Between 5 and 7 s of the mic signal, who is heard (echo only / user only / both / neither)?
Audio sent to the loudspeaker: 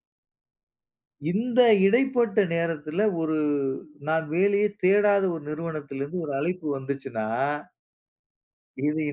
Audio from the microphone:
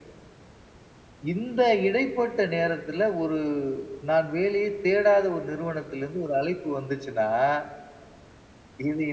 echo only